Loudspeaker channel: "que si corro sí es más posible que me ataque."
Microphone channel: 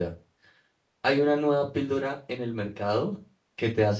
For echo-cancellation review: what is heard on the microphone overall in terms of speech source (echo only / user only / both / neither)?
user only